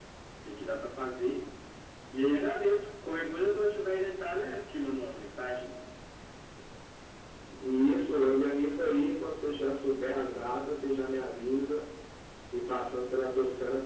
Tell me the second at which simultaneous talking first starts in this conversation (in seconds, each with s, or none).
none